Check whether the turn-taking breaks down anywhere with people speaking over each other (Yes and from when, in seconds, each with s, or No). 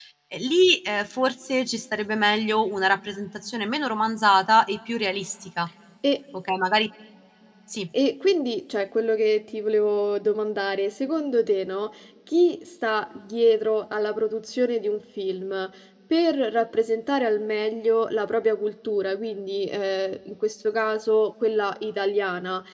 No